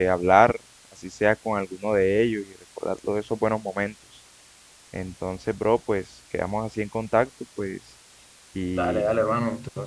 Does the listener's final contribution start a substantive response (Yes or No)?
Yes